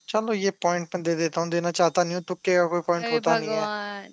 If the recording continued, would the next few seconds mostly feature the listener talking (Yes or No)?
Yes